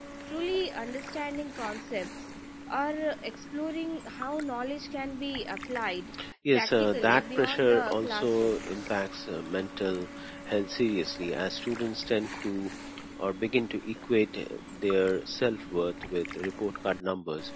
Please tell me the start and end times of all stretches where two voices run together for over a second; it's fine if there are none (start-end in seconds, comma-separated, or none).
6.5-8.6